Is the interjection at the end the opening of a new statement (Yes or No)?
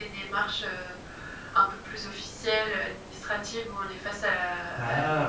No